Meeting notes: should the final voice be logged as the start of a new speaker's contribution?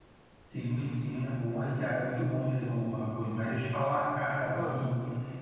No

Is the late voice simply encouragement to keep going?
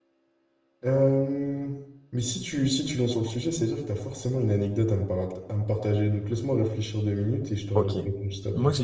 No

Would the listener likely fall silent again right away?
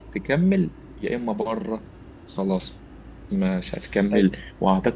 Yes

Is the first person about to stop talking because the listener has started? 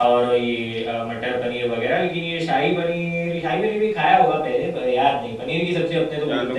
Yes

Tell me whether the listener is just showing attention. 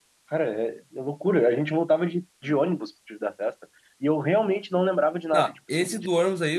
No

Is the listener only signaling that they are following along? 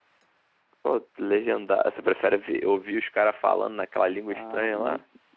No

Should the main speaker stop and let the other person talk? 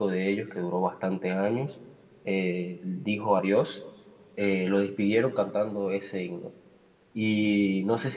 No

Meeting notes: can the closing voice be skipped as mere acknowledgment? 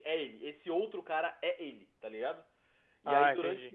Yes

